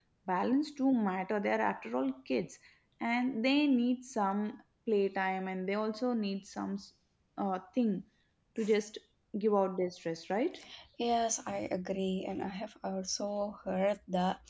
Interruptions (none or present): none